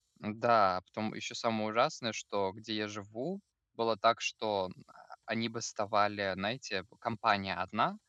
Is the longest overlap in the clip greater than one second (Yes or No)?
No